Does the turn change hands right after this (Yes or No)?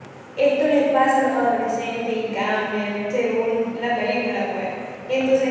No